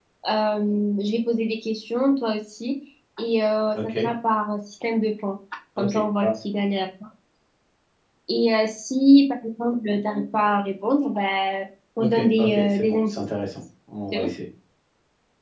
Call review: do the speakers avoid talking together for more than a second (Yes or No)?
No